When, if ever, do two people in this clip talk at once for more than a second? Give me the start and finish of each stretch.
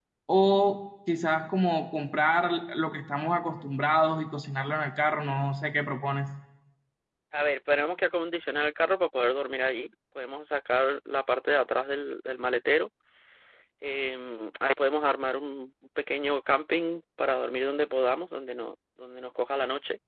none

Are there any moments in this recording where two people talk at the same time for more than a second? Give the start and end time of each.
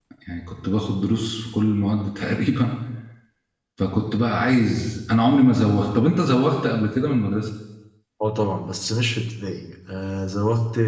none

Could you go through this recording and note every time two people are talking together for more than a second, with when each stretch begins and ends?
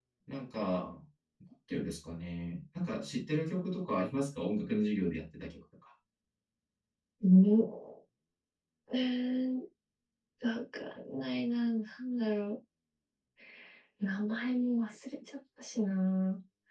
none

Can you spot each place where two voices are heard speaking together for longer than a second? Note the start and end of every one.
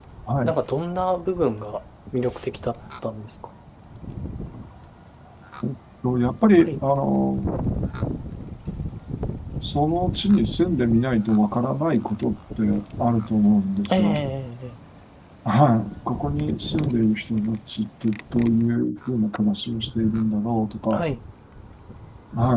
none

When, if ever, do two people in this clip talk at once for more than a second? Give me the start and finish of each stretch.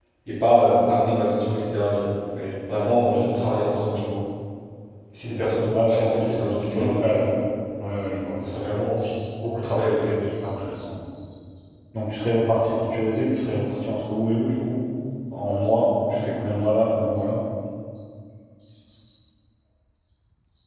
5.7-7.4

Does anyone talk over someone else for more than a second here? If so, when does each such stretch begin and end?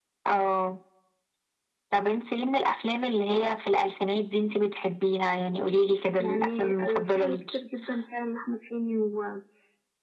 6.2-7.6

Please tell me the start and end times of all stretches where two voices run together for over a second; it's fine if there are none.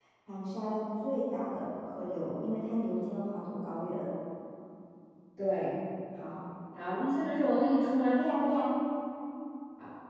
none

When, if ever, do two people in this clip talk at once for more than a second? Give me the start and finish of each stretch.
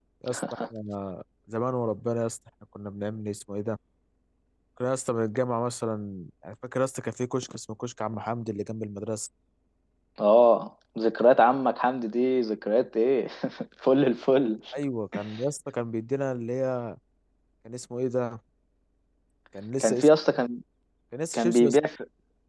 none

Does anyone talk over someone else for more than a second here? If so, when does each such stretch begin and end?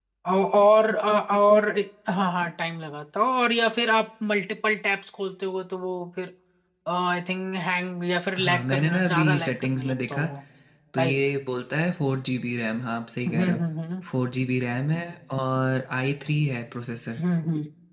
8.4-10.2

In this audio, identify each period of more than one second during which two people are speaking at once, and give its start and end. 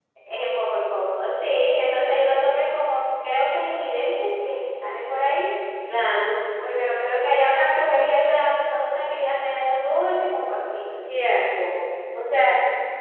none

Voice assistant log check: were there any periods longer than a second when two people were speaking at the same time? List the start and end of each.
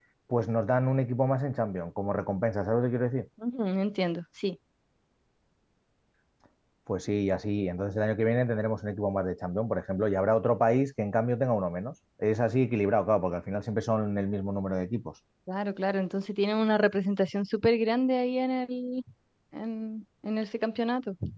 none

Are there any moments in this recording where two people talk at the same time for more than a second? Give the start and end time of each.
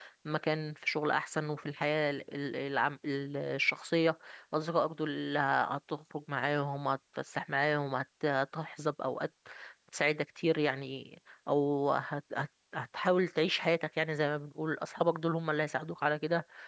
none

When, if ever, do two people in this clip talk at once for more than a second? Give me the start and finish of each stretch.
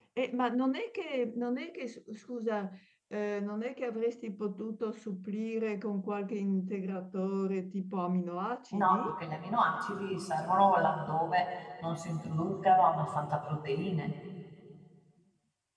none

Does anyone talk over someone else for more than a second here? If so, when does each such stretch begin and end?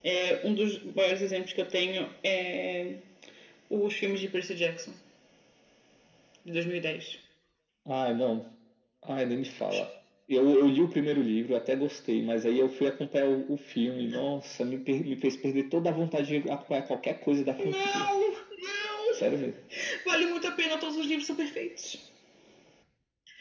none

